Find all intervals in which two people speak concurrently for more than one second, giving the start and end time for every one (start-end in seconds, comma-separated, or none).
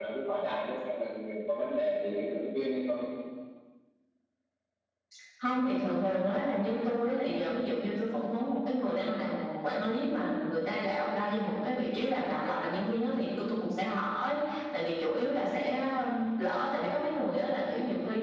none